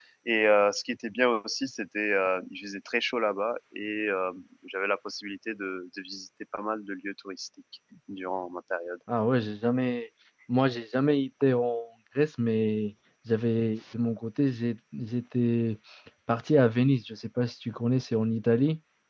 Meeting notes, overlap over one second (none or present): none